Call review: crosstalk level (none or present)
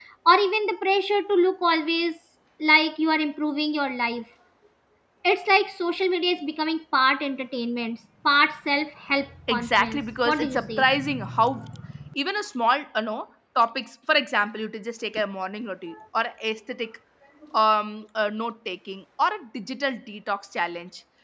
present